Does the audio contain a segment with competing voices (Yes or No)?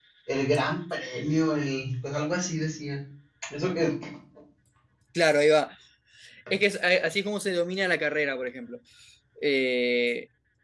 No